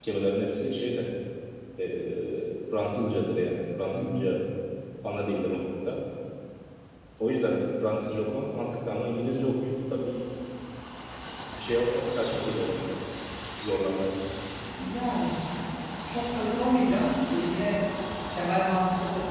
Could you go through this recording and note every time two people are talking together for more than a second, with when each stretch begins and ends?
none

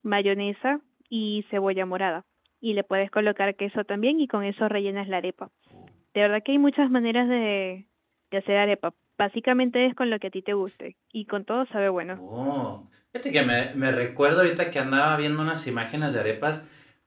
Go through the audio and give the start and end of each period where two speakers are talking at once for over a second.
none

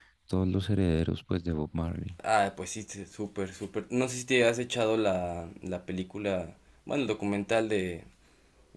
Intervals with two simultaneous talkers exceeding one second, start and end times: none

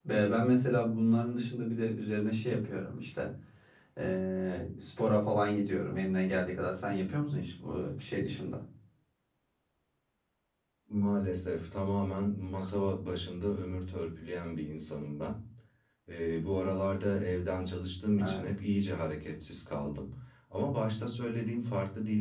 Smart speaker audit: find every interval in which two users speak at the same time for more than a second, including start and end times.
none

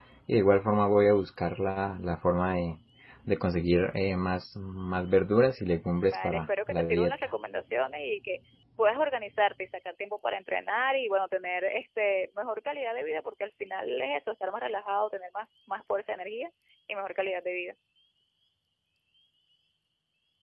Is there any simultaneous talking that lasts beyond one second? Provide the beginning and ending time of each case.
6.1-7.3

